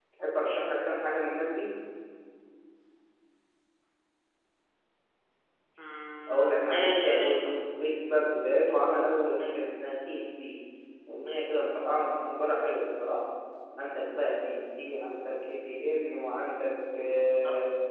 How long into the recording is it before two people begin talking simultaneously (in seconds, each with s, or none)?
6.3 s